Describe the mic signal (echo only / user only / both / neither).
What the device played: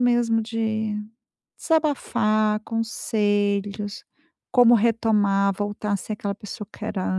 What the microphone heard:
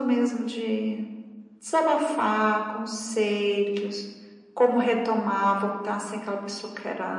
echo only